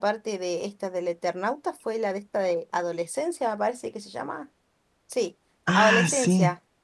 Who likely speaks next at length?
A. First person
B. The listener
A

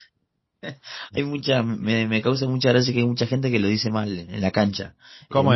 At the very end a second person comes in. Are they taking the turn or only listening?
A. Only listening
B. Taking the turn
A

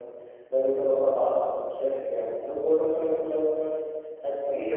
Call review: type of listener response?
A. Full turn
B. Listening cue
B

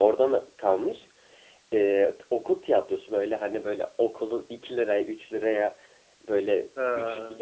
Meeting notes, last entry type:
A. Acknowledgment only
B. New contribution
A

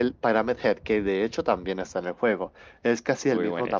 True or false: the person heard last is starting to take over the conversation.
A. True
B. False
B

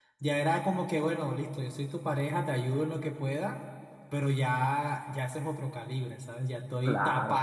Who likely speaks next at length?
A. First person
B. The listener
A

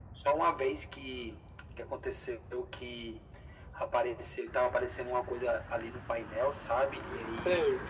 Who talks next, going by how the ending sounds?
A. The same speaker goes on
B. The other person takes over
A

